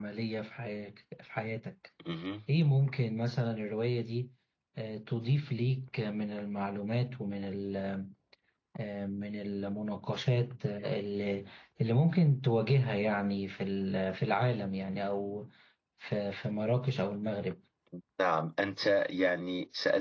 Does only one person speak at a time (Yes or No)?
Yes